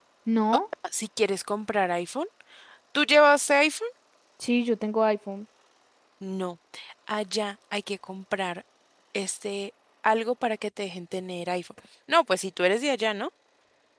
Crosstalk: none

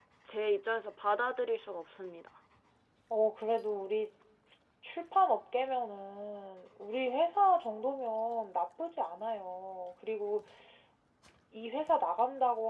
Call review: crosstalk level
none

